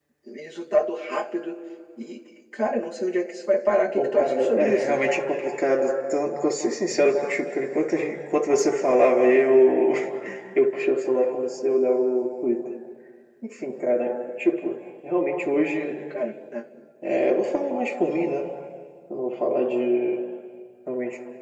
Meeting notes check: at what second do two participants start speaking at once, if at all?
3.9 s

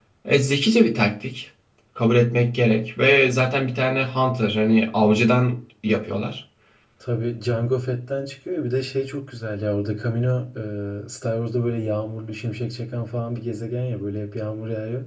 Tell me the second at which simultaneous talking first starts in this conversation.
none

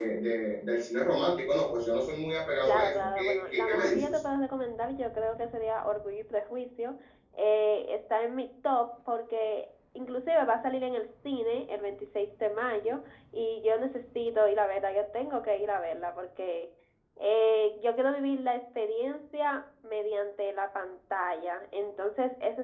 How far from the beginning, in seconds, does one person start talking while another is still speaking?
2.6 s

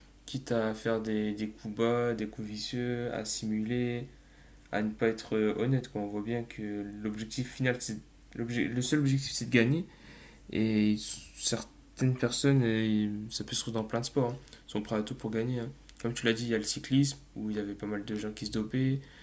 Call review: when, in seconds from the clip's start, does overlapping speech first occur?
none

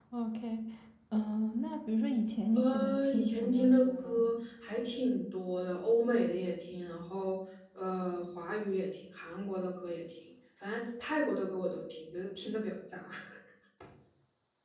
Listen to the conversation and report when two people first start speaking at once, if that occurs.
2.6 s

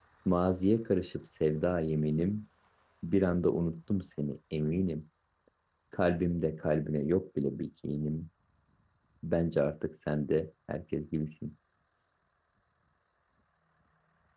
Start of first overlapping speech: none

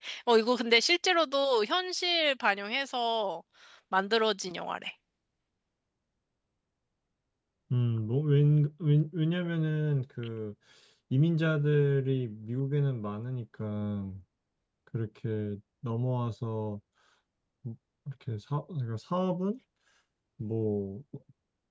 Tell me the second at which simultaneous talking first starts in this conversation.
none

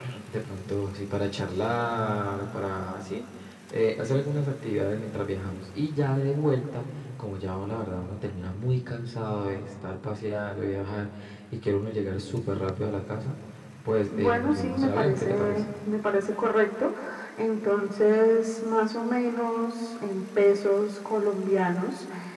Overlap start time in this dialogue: 14.1 s

